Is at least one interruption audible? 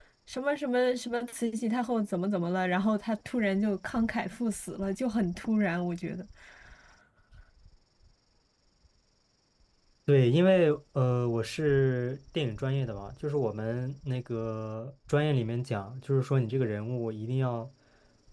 No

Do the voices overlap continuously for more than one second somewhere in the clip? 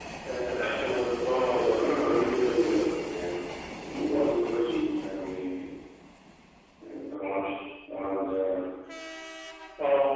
Yes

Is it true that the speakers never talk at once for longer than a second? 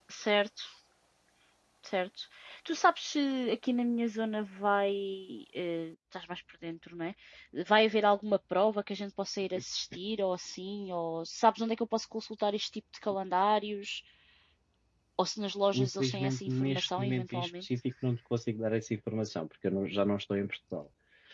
No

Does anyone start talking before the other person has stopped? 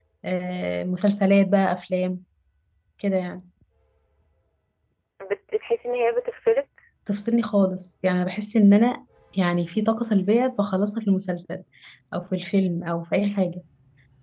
No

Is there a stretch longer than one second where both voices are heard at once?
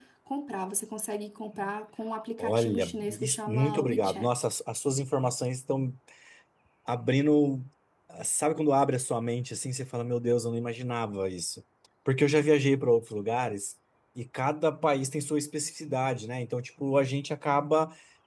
Yes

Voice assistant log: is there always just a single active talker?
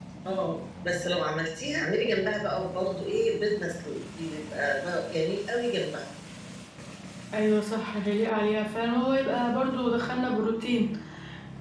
Yes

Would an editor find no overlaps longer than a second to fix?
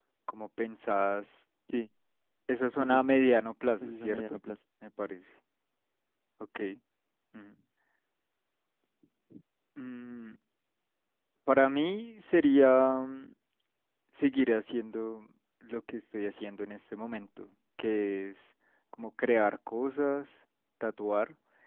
Yes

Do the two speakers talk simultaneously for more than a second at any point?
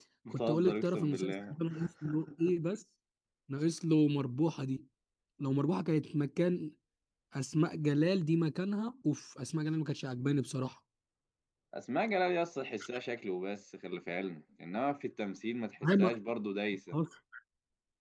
Yes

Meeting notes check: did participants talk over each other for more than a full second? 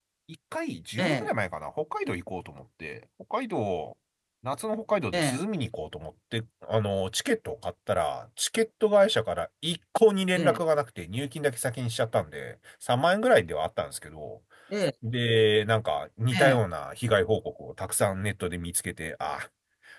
No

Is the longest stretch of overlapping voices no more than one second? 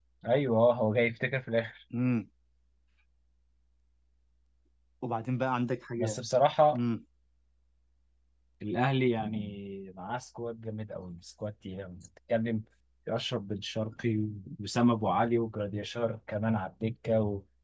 Yes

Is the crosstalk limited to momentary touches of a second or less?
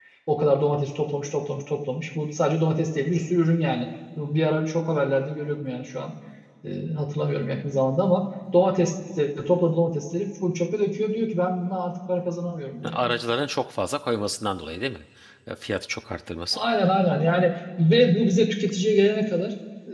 Yes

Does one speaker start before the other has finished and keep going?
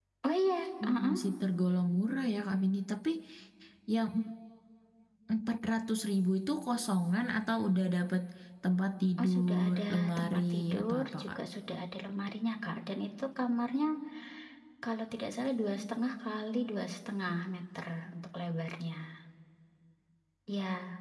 Yes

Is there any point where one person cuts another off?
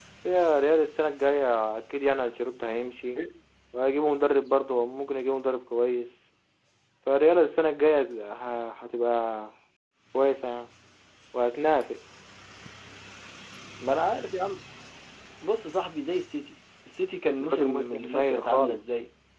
Yes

